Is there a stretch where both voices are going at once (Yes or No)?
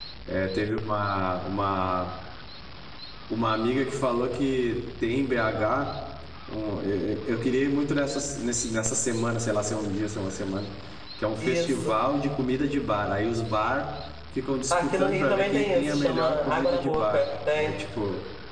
Yes